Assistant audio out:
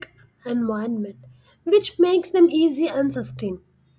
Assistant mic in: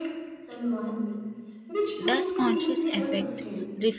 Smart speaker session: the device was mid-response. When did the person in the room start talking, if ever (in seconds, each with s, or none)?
2.1 s